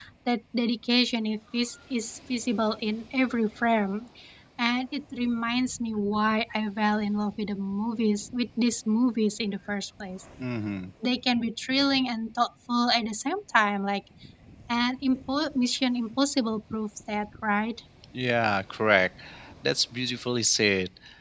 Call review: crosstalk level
none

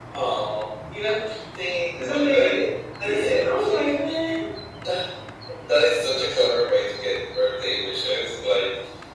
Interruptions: present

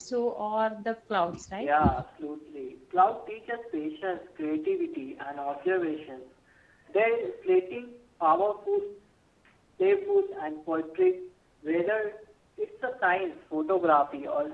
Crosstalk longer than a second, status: none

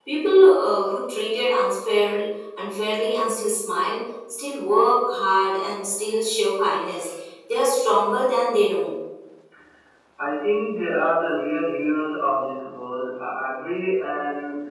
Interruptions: none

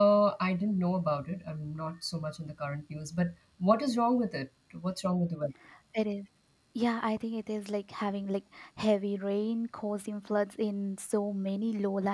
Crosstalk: none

